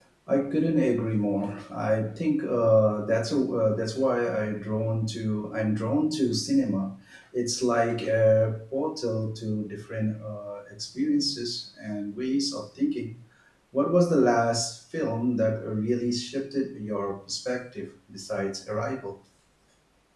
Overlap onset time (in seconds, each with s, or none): none